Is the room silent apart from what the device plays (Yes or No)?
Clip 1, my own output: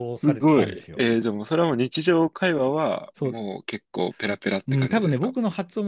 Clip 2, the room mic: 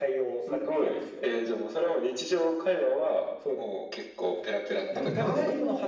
No